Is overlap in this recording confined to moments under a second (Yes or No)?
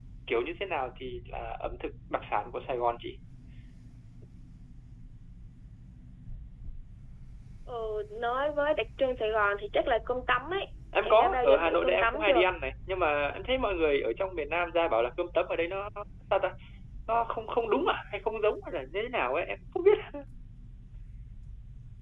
No